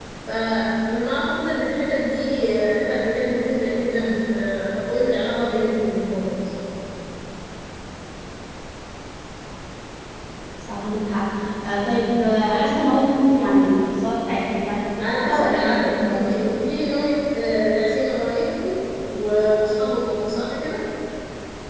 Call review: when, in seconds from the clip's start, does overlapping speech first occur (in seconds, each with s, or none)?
15.0 s